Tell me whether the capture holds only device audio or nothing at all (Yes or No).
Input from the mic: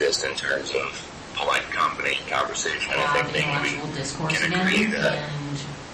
No